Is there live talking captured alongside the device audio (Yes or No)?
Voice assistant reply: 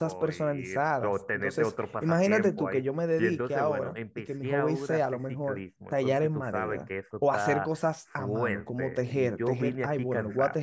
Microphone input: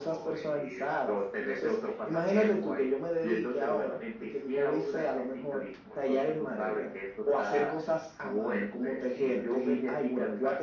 No